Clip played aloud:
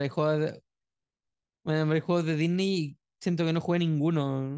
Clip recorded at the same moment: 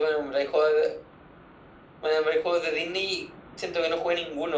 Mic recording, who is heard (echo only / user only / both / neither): echo only